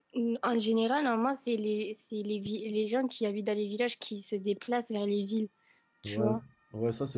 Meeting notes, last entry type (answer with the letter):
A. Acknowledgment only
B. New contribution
B